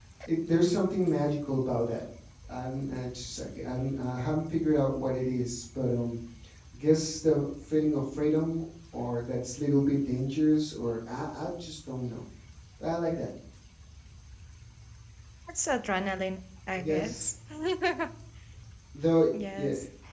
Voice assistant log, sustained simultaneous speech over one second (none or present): none